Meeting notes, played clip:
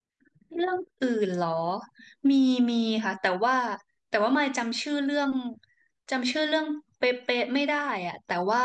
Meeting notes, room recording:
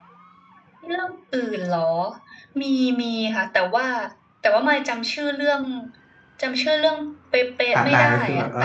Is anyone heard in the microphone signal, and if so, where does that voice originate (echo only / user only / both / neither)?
both